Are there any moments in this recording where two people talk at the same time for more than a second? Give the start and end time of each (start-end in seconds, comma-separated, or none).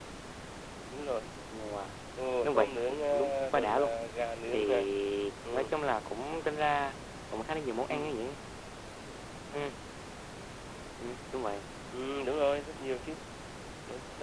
2.4-3.9